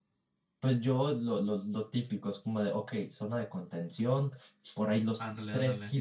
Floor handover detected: No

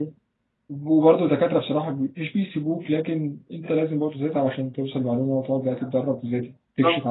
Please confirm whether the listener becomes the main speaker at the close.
No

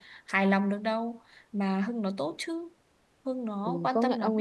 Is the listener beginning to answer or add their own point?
Yes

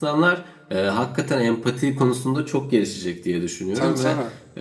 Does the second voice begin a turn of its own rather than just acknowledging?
No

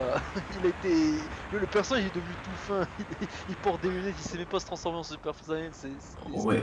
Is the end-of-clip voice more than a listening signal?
Yes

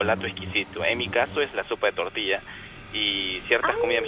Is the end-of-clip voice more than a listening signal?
No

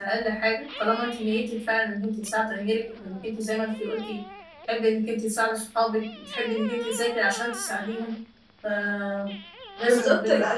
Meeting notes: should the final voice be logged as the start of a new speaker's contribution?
Yes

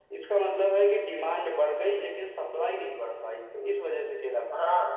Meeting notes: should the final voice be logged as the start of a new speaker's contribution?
Yes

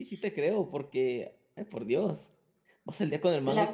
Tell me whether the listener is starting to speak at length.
No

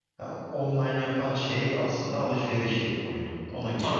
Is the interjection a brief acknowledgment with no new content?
No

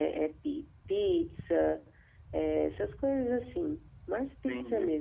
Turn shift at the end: Yes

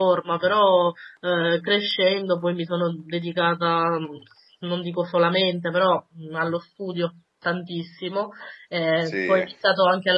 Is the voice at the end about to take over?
No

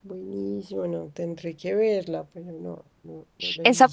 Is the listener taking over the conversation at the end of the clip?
Yes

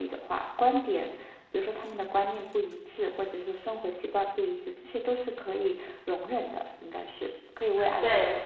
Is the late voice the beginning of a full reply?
Yes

